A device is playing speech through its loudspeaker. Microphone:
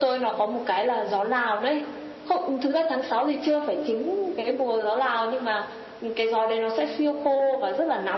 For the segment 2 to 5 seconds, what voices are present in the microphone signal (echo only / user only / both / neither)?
echo only